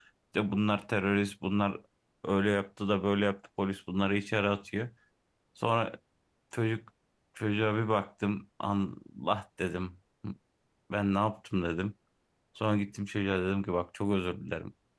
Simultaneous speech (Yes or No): No